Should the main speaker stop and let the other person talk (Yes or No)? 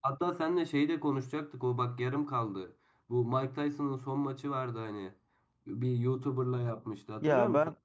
Yes